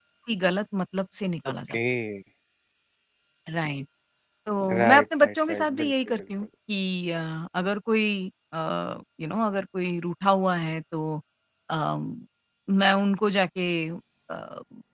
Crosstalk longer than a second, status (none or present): present